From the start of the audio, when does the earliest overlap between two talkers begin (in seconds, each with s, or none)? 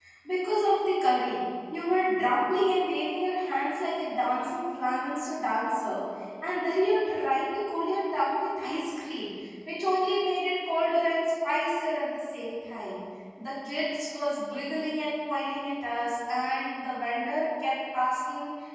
none